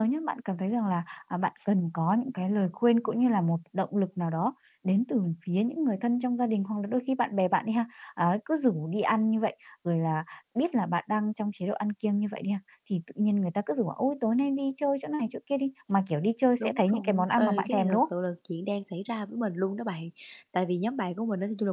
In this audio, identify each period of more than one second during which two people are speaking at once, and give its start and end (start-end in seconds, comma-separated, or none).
16.6-18.1